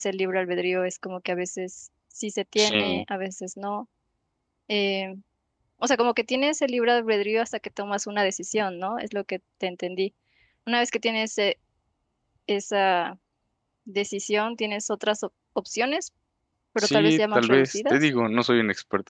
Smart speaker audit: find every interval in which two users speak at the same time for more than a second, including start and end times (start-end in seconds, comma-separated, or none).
16.8-18.1